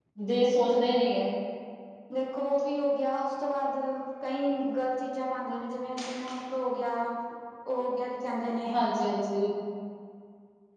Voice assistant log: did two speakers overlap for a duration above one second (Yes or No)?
No